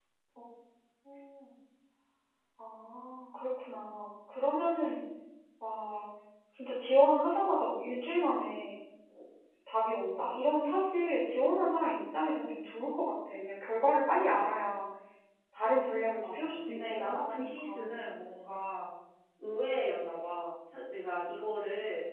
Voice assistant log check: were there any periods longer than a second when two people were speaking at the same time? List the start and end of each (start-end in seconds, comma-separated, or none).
16.2-17.9